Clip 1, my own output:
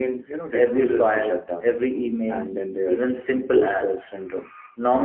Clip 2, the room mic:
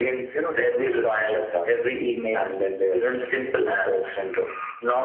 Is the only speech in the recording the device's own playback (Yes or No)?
Yes